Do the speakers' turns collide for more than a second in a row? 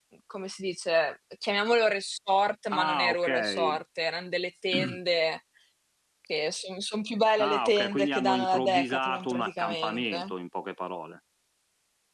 Yes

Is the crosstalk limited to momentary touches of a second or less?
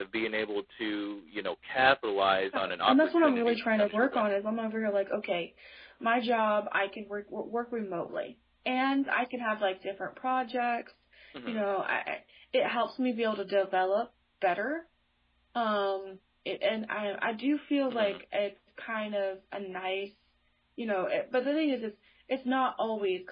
No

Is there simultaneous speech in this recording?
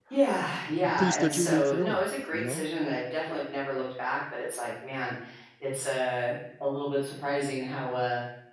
Yes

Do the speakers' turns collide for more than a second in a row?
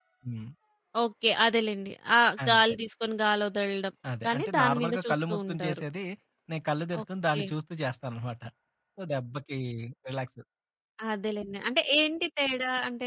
Yes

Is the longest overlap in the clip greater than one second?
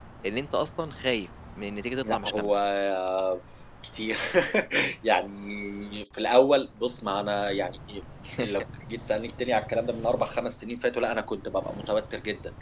No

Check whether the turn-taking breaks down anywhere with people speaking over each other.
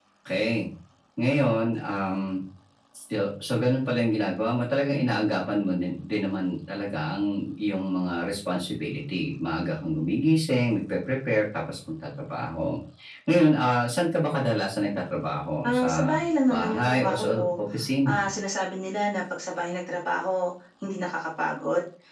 Yes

